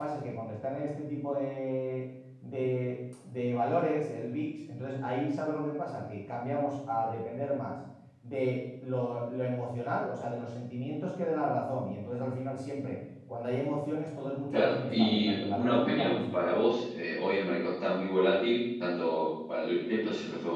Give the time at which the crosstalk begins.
14.5 s

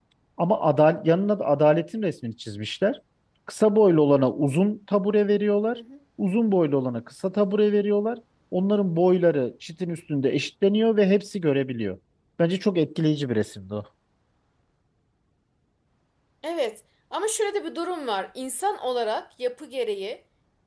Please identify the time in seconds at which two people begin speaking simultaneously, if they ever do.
none

